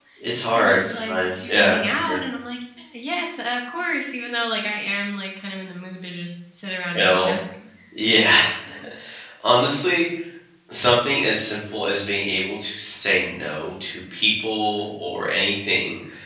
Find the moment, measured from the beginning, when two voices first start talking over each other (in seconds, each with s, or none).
0.6 s